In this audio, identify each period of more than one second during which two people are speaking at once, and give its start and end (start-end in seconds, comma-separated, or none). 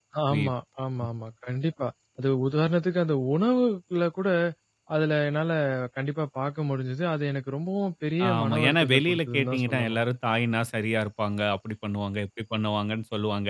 8.3-10.0